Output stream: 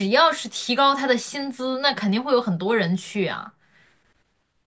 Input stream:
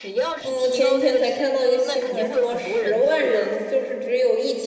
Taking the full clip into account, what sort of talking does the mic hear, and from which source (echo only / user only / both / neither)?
both